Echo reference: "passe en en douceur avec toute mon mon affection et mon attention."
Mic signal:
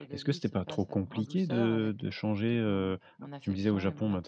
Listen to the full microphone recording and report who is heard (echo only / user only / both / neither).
both